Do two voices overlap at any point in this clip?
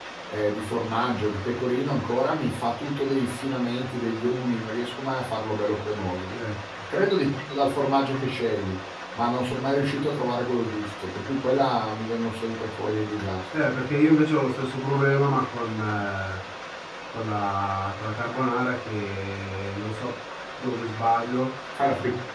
No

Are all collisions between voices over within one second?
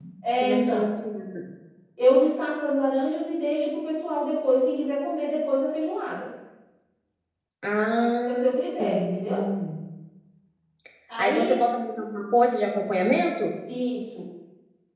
No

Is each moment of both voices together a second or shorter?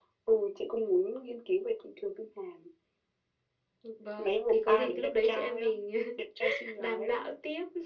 No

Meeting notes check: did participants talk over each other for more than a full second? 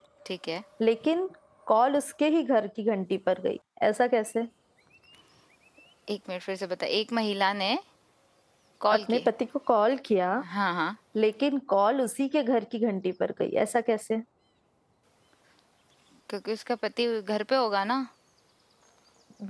No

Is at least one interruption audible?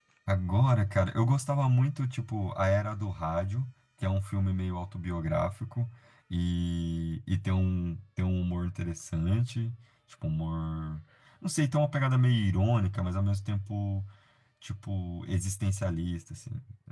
No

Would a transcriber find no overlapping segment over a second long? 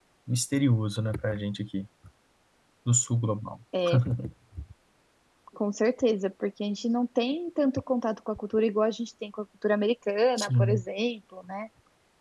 Yes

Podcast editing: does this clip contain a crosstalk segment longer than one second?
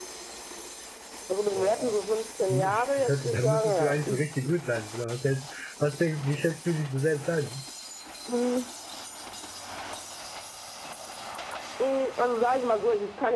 Yes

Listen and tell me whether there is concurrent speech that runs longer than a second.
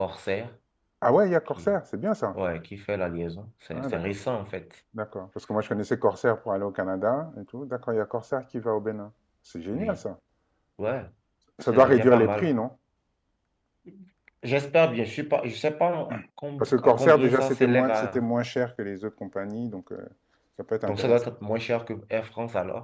Yes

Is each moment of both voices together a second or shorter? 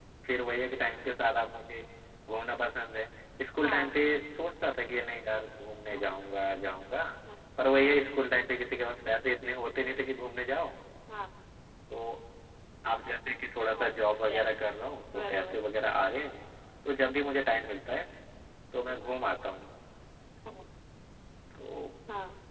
Yes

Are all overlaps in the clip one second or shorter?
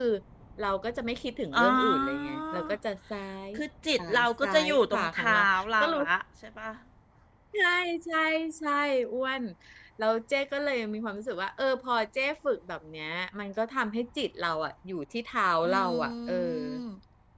No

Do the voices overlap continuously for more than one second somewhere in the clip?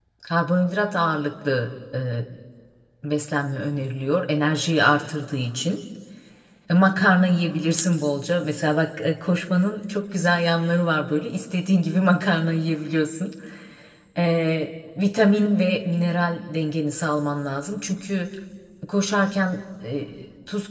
No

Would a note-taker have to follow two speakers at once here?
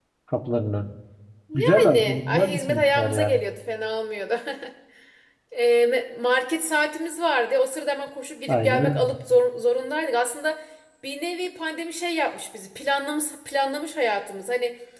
Yes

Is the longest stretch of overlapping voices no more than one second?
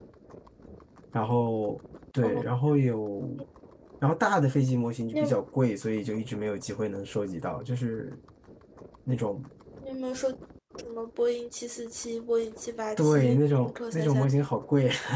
No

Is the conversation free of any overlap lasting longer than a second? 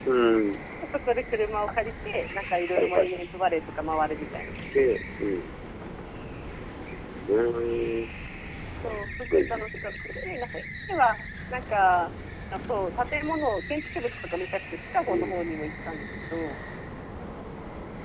No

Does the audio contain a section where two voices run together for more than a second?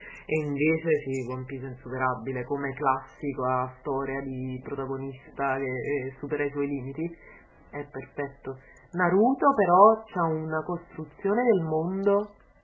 No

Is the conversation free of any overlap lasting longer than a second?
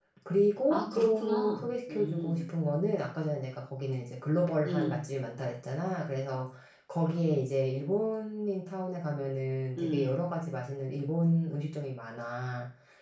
No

